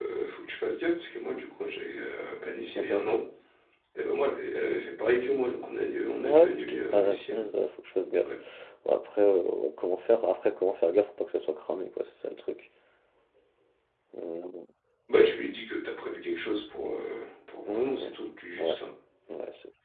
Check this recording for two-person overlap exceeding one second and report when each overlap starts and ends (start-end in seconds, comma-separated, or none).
none